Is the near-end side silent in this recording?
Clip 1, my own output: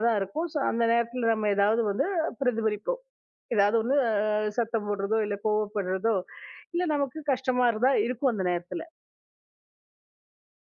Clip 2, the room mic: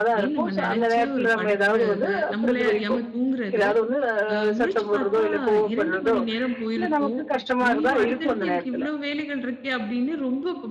No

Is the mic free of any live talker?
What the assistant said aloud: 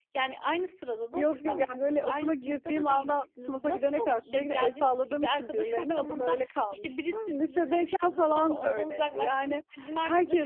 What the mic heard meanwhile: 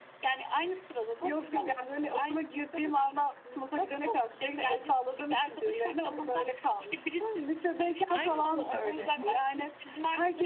No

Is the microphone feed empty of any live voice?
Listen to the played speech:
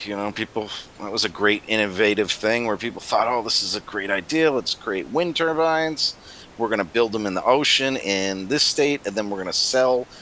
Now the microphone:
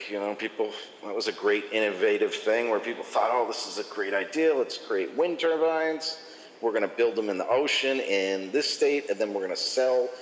Yes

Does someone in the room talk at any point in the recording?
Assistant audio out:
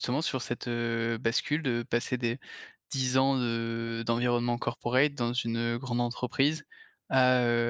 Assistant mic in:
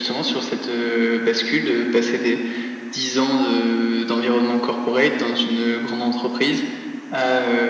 No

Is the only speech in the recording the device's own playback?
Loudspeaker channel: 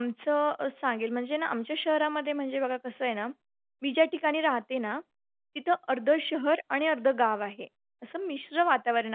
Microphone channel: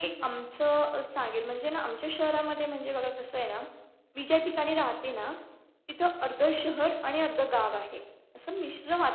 Yes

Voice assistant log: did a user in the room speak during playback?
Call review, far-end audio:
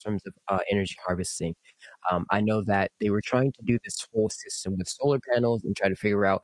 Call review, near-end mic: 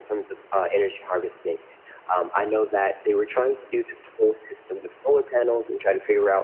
No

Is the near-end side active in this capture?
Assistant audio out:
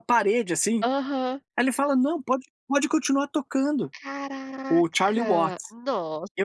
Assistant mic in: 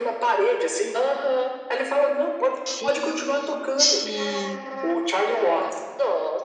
Yes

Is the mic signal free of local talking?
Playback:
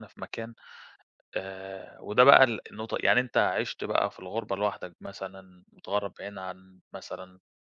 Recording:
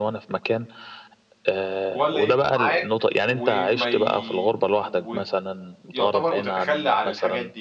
No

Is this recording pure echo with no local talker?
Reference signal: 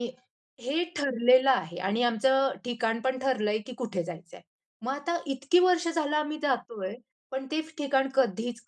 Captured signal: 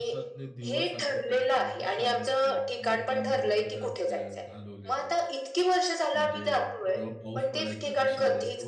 No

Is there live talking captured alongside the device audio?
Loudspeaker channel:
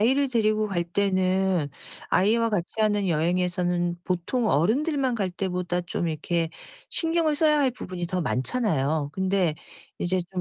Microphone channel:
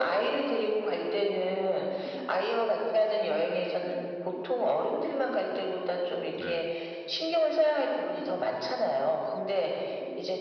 Yes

